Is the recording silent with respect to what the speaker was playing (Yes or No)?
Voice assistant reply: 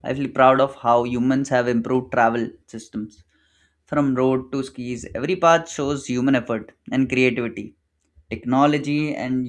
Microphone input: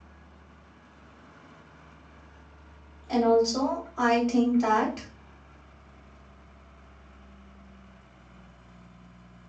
Yes